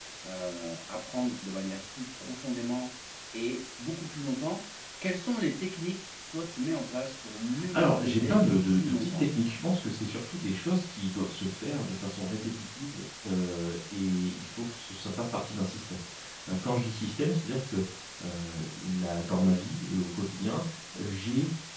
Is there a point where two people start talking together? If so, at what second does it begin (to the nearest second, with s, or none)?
8 s